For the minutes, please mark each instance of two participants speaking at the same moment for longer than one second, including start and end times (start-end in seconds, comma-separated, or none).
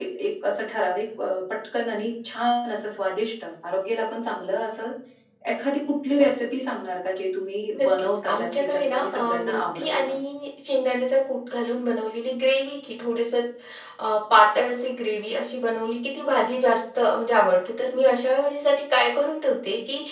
7.8-10.2